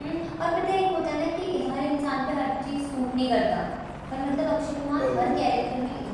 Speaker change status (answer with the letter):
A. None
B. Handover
A